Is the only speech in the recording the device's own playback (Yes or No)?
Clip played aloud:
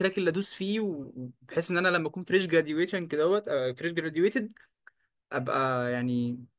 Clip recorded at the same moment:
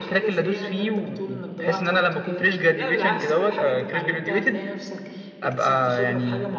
No